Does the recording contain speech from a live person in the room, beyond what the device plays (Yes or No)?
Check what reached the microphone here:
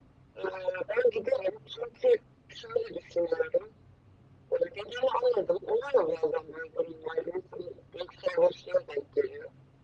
No